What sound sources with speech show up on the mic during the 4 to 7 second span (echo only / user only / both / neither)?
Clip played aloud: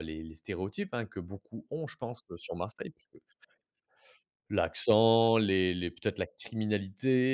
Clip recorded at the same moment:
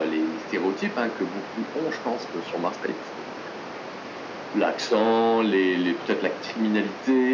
echo only